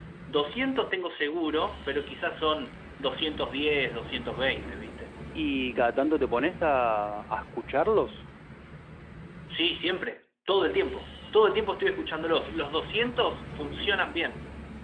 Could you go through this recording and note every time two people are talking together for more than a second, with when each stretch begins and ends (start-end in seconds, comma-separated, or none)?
none